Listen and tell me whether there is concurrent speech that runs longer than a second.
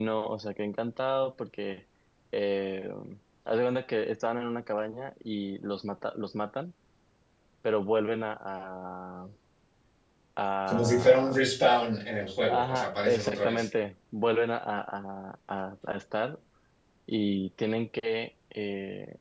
Yes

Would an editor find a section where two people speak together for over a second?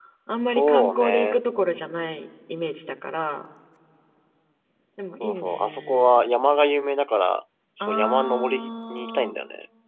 Yes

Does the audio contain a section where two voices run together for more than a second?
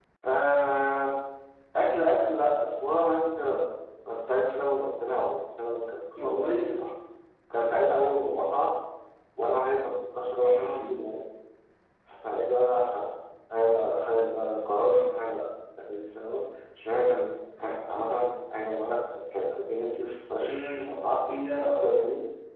No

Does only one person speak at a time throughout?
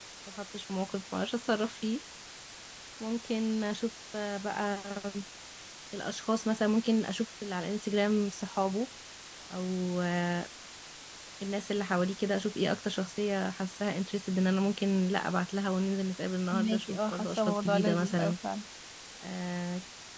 No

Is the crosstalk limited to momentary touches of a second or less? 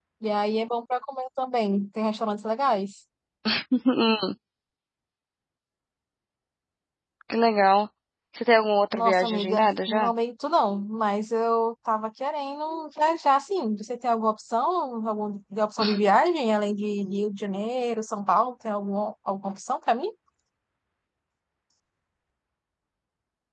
No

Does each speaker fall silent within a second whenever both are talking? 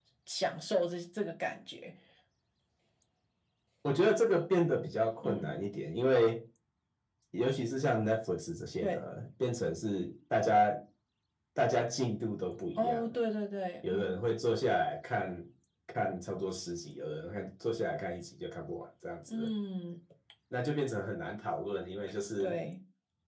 Yes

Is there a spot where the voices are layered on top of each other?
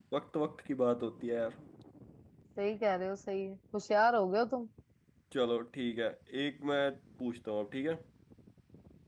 No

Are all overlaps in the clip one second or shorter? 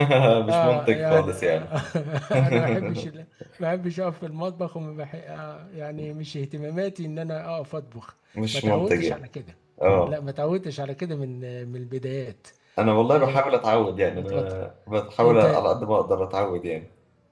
No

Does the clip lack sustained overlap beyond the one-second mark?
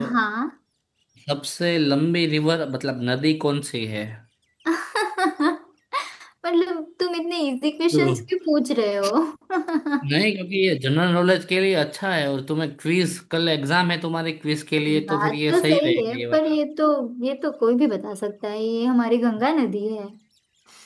No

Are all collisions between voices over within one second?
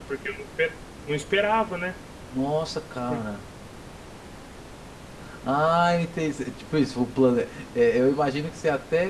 Yes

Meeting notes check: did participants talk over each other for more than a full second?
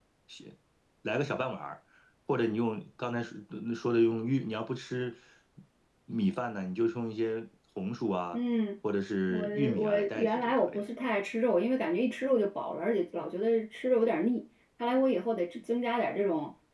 Yes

